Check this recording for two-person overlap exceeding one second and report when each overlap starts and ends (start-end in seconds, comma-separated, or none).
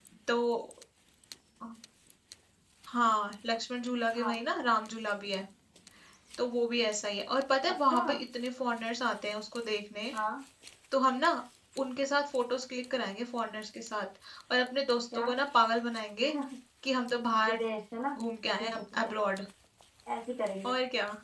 none